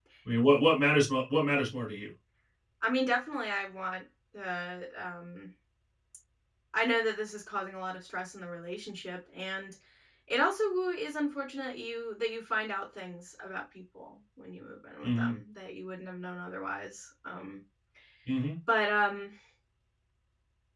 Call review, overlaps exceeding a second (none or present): none